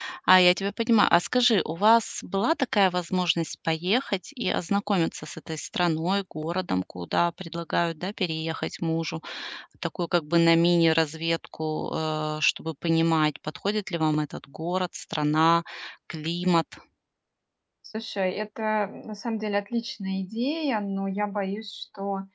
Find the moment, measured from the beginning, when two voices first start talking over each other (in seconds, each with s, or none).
none